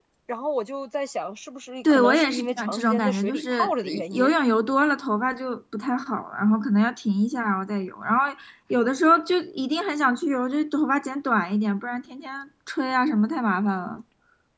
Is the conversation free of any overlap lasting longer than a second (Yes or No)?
No